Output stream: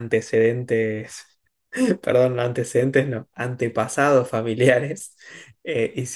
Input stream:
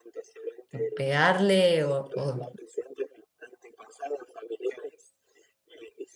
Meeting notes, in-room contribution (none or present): present